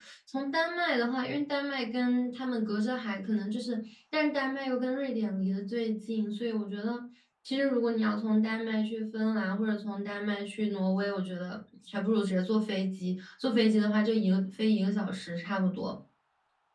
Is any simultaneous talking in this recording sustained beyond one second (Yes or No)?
No